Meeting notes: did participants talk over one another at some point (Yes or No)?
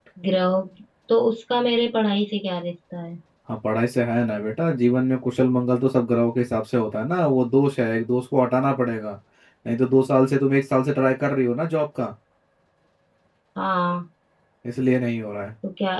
No